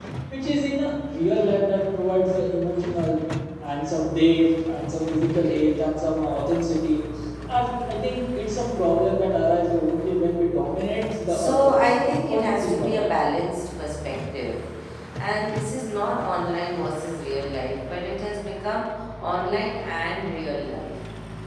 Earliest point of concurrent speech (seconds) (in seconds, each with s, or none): 11.3 s